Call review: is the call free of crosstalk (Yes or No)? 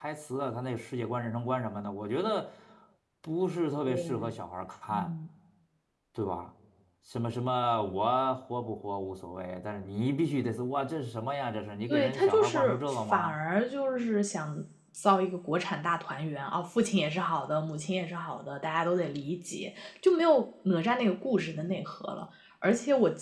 No